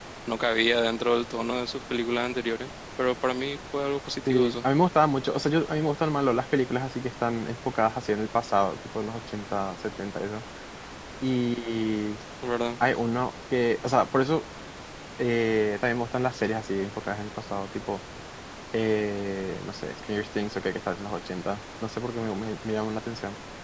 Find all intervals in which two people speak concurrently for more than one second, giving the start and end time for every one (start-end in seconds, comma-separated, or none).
none